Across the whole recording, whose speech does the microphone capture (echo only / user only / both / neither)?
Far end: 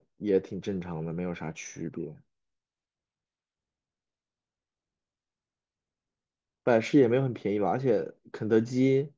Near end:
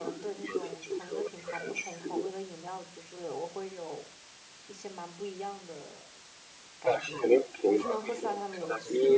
both